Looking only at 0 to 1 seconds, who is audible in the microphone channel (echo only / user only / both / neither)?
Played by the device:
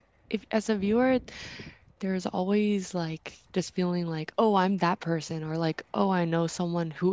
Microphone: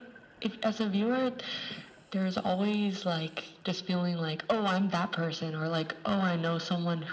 echo only